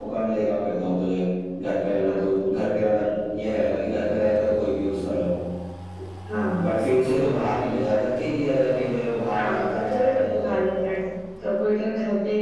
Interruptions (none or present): present